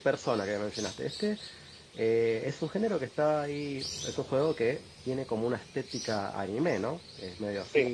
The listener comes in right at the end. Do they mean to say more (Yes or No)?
No